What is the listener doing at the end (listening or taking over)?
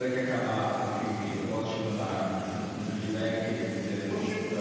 taking over